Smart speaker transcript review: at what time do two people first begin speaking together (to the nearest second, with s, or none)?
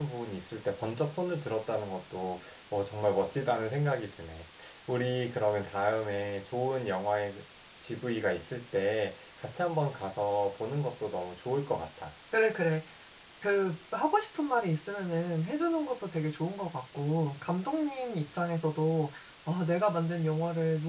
none